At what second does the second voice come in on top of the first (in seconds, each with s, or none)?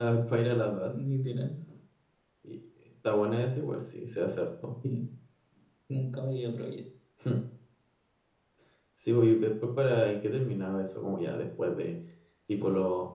none